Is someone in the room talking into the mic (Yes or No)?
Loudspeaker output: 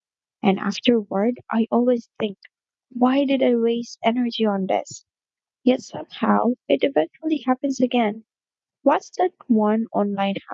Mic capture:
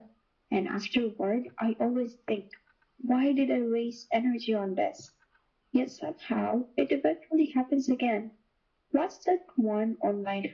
No